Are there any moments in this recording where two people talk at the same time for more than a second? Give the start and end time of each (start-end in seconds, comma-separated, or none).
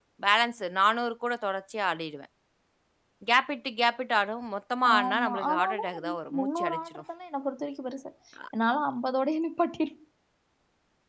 4.9-7.0